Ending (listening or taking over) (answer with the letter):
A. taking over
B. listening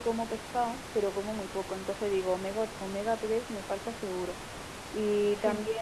B